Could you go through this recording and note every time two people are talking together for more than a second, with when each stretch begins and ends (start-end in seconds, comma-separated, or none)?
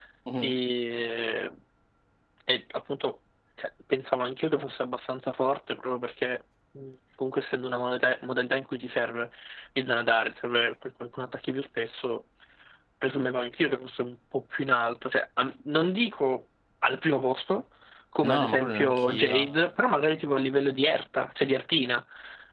18.2-19.5